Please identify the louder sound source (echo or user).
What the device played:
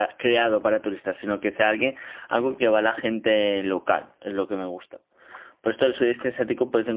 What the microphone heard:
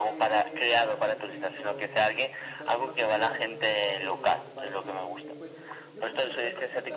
echo